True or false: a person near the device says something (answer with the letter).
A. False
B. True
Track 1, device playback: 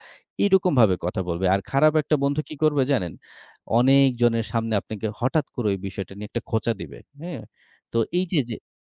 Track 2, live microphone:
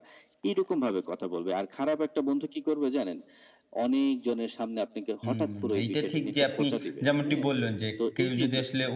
B